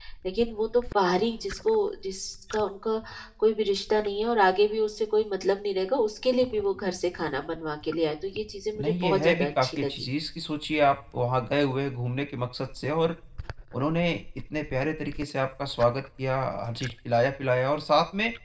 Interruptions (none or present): present